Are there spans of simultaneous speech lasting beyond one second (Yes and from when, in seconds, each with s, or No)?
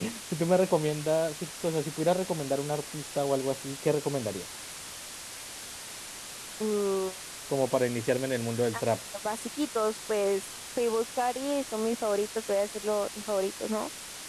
No